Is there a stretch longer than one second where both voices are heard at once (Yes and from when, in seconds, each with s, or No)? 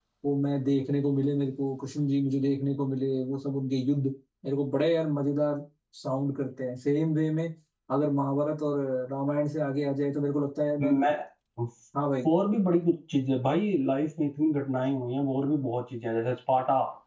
No